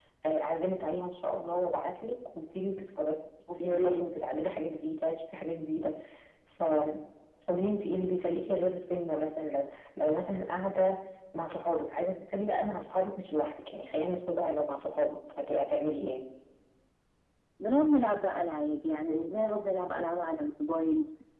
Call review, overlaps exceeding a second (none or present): none